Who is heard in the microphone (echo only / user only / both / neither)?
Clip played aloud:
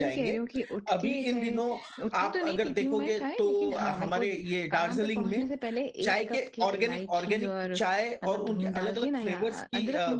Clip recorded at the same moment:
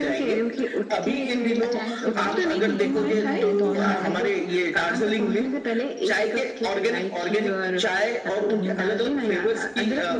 both